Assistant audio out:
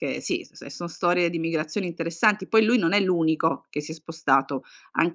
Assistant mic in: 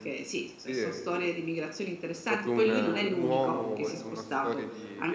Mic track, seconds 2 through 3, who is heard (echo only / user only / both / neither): both